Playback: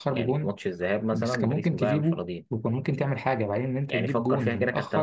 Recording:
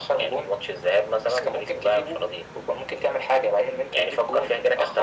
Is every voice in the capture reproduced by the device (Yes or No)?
Yes